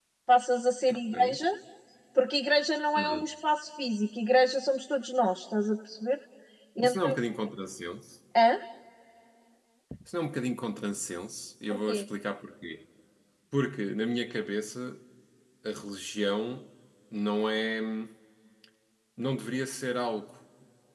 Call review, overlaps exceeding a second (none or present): none